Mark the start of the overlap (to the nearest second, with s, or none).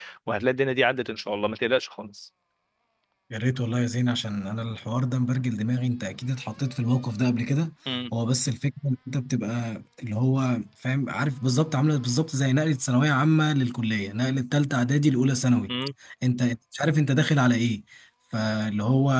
none